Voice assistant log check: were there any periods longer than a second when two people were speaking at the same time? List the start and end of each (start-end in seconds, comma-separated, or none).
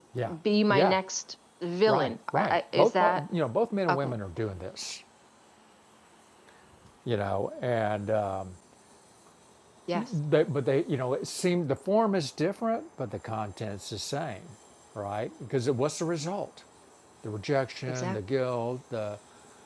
1.9-3.2